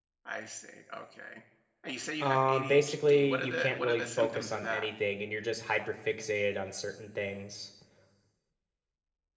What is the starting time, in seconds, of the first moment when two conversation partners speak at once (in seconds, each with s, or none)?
2.2 s